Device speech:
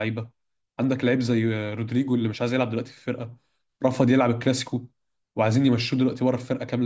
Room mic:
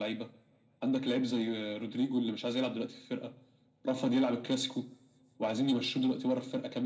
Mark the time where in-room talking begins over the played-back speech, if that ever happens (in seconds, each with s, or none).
none